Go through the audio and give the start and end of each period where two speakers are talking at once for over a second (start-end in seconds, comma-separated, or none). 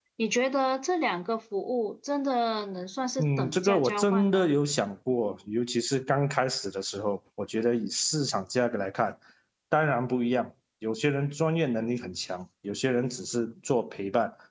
3.2-4.5